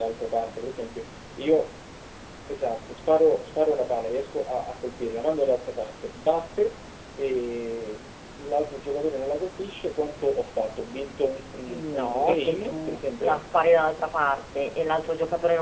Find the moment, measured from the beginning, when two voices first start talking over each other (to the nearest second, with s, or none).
12 s